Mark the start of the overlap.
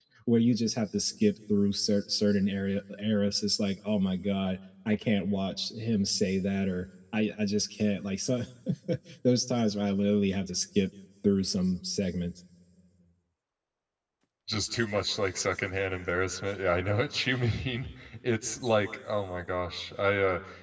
none

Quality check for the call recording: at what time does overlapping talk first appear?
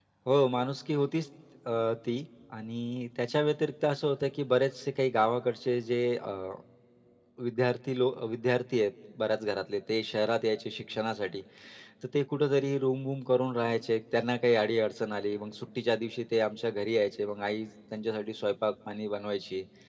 none

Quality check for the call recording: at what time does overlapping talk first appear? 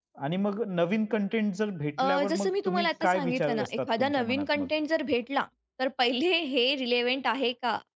2.0 s

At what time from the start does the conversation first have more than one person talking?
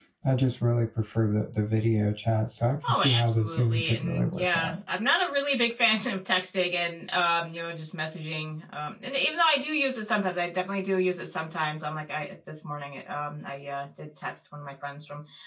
2.8 s

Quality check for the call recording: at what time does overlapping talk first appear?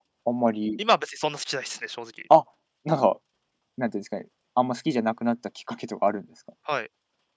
none

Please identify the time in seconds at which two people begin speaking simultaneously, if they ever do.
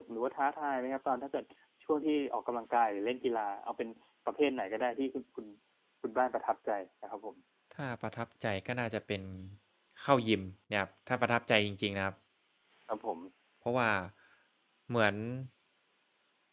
none

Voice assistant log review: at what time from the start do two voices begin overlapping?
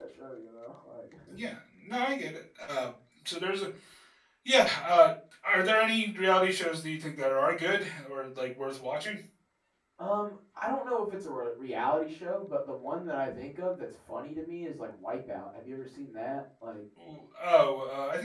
none

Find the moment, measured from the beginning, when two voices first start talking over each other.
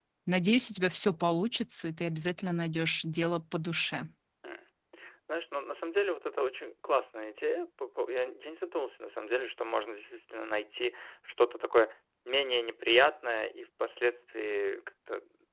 none

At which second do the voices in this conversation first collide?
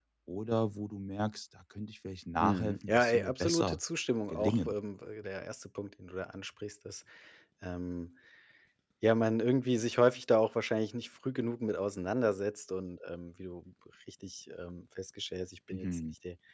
2.4 s

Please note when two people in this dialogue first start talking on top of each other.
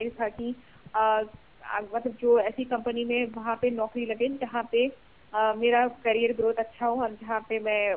none

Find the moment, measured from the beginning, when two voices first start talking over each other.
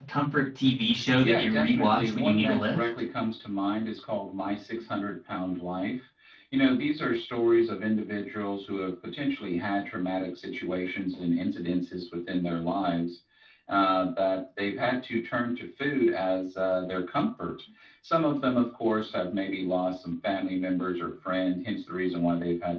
1.2 s

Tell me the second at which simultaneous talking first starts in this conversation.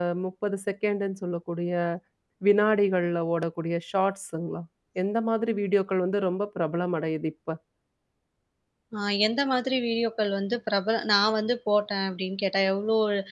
none

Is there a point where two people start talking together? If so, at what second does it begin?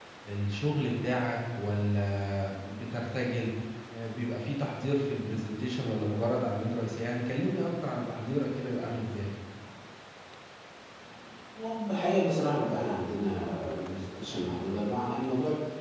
none

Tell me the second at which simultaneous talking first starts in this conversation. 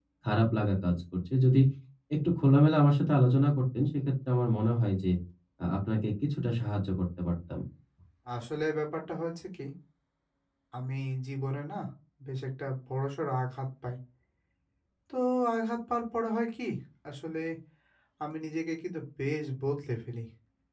none

